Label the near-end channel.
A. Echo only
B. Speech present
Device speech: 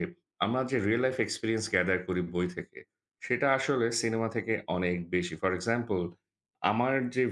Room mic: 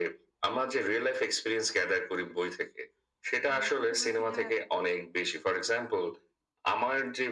B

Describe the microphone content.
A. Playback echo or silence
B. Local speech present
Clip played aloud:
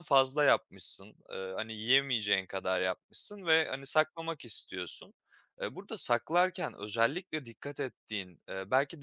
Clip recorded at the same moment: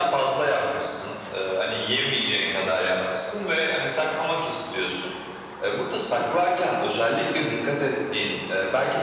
A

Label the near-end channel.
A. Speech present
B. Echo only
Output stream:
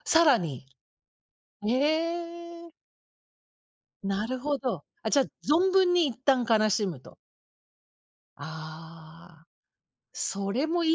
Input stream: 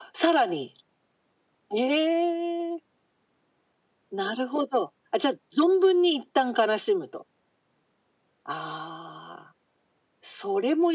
B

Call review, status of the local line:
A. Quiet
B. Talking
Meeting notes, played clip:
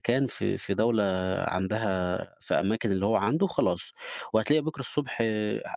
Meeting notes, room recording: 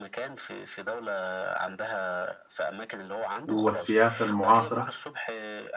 B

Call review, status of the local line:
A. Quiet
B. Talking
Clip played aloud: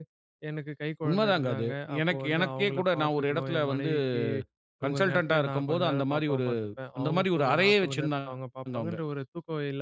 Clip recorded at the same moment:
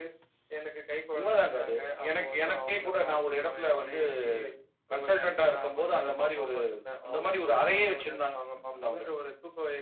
A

